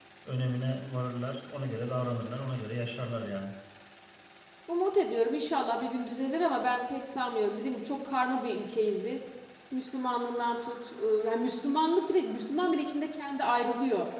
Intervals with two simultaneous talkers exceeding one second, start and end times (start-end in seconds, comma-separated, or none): none